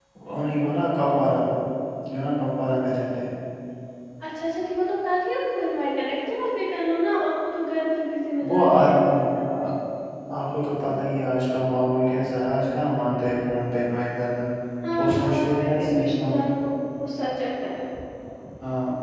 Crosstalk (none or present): present